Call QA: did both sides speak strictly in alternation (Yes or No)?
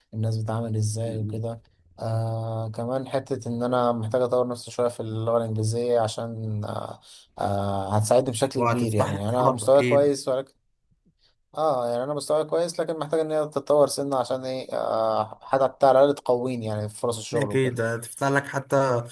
No